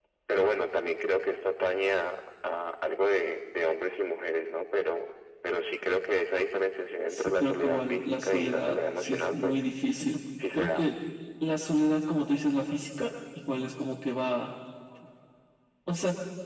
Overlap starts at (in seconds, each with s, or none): 7.1 s